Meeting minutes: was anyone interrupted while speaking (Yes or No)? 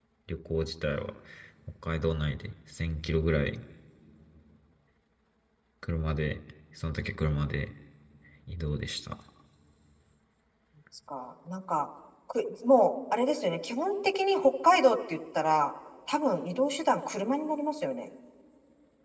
No